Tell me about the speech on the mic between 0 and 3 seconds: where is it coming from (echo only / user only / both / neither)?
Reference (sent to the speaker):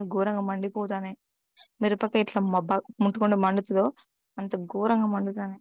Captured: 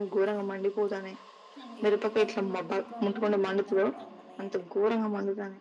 both